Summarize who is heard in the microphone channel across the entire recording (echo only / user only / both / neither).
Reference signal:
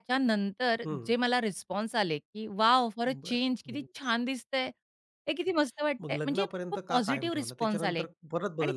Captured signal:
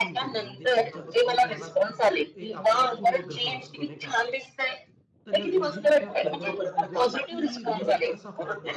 both